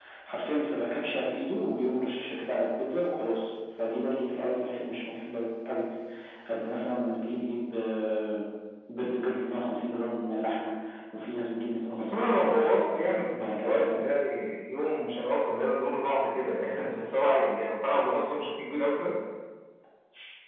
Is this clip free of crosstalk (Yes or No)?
No